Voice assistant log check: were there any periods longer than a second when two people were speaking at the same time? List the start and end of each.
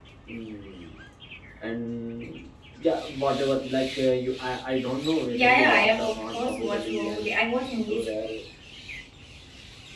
5.3-7.3

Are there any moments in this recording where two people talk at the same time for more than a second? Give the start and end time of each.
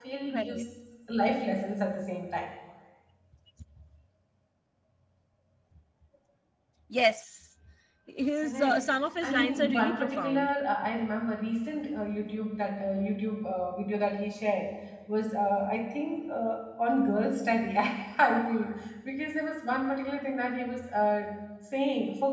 9.2-10.5

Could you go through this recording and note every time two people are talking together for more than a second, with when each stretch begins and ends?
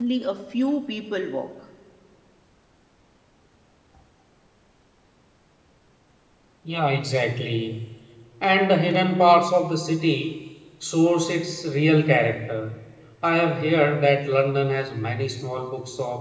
none

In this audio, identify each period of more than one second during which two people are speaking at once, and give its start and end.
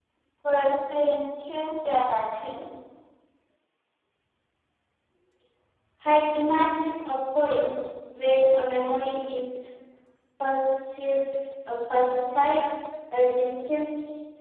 none

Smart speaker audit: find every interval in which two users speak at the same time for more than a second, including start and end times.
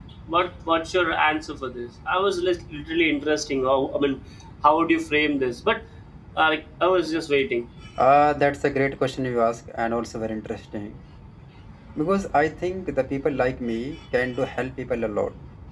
none

